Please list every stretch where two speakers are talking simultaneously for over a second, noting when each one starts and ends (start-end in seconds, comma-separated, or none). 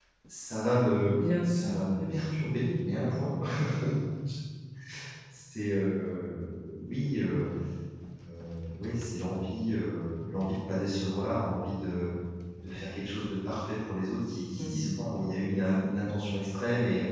1.0-2.8